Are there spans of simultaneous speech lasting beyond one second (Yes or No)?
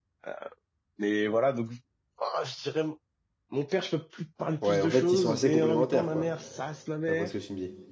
Yes